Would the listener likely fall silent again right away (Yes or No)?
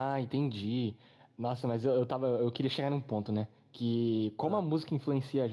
Yes